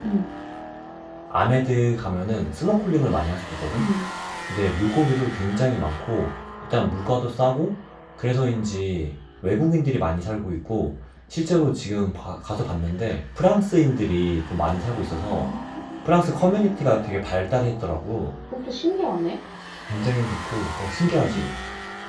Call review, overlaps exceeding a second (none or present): none